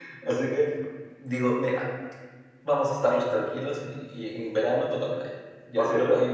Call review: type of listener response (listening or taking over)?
listening